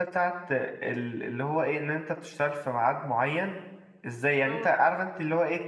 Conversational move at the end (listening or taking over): listening